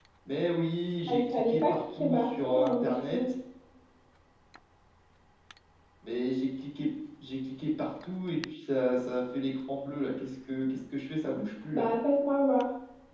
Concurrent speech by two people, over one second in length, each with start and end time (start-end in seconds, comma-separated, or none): 1.1-3.2